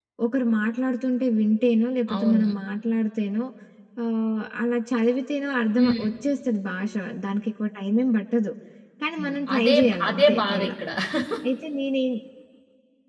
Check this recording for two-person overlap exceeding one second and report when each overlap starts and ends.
9.2-10.7

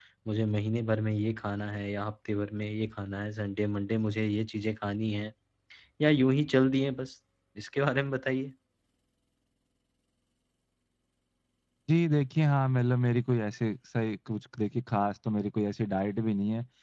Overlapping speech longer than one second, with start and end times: none

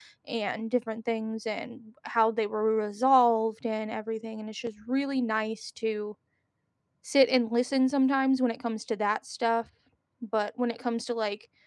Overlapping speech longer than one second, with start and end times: none

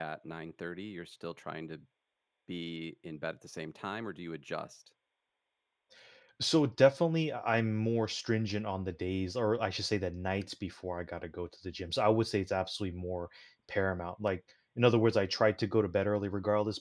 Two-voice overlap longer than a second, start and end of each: none

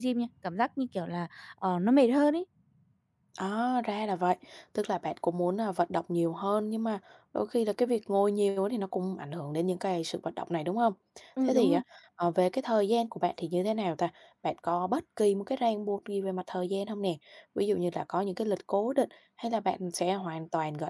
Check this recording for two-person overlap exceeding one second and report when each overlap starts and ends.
none

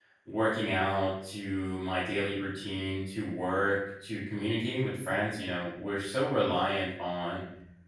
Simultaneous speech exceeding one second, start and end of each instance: none

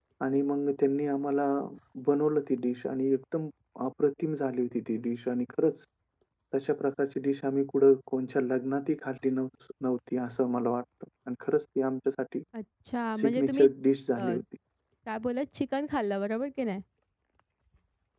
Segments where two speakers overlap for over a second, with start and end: none

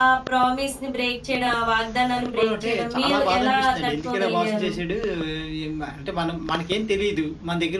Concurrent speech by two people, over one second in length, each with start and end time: 2.2-4.7

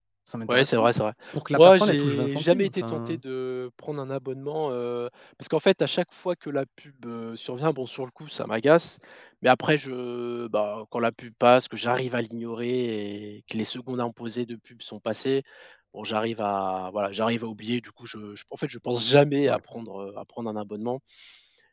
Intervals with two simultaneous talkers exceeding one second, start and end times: 1.5-3.2

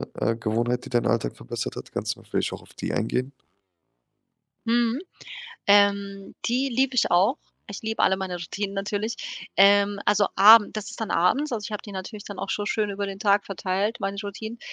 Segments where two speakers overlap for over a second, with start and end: none

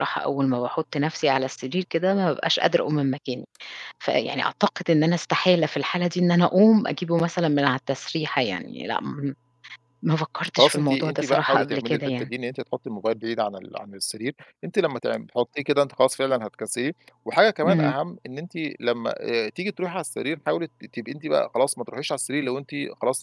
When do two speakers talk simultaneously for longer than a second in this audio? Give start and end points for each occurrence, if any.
10.6-12.3

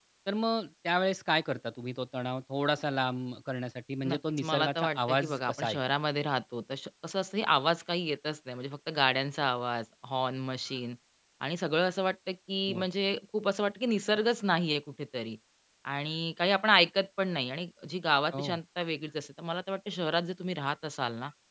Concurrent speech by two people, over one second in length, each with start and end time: 4.1-5.8

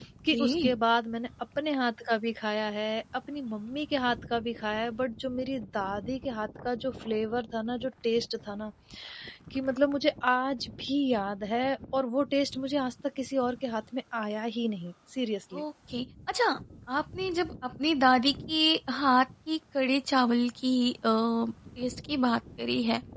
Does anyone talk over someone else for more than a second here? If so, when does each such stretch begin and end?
none

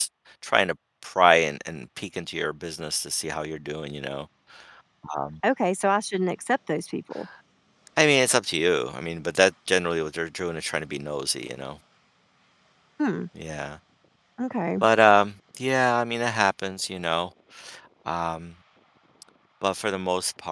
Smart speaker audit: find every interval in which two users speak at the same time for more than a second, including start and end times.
none

